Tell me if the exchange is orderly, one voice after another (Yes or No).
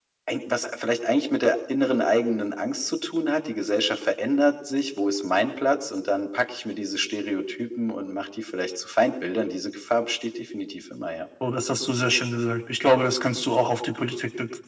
Yes